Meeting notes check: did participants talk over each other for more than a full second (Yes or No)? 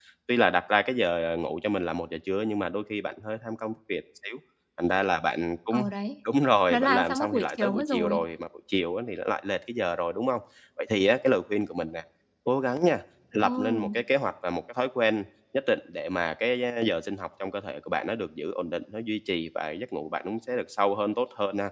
Yes